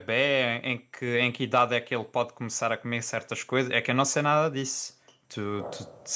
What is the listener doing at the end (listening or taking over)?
taking over